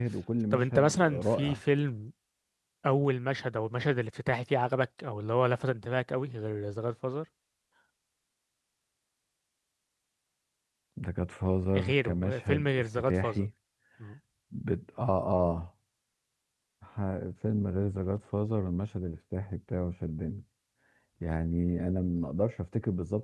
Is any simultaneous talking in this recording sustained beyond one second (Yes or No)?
Yes